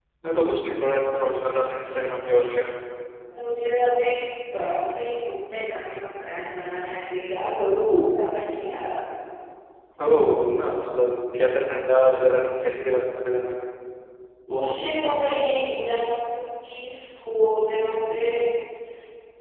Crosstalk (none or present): none